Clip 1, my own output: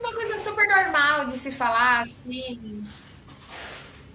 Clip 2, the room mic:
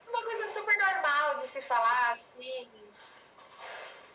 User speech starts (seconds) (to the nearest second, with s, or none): none